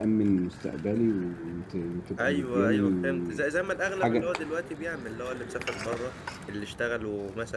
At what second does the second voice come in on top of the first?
2.2 s

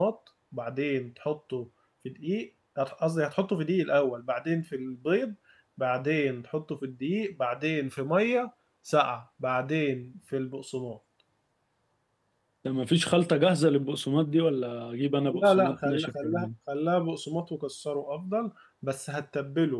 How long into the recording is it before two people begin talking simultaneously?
15.2 s

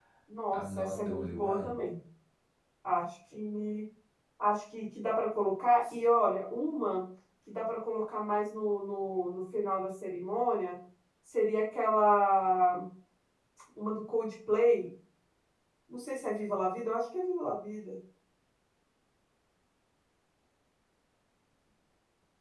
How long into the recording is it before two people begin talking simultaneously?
0.5 s

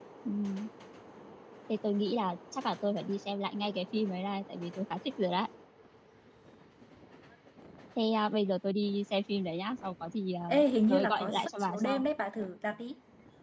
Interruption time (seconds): 10.5 s

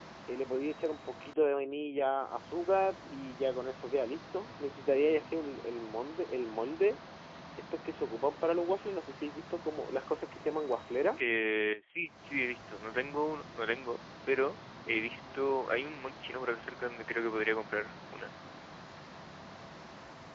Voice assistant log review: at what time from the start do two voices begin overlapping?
none

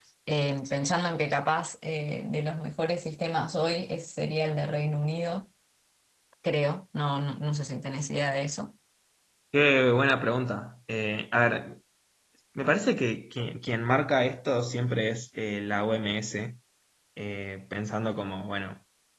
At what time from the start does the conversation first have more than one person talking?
none

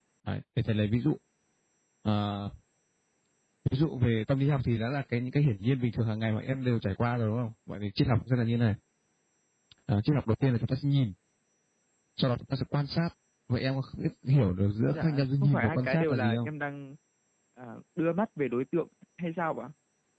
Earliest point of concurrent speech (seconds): 14.9 s

